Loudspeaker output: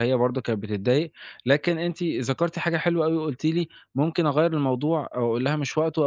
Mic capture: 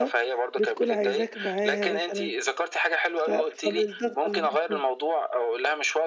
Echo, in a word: present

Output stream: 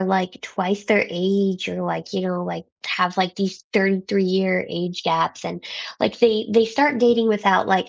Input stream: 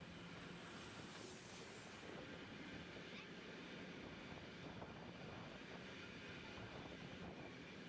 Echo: none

